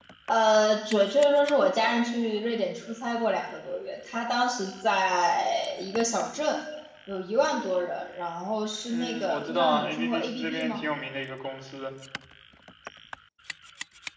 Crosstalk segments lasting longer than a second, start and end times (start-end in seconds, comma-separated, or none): 8.9-10.8